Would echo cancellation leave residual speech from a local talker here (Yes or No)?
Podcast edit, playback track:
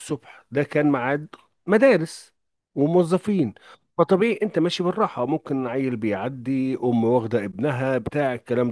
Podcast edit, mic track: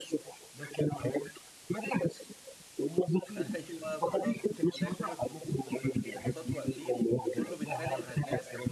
Yes